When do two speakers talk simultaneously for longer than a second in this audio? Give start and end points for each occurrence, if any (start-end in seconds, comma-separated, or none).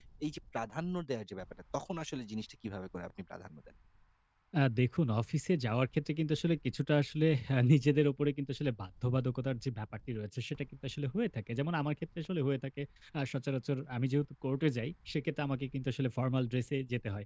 none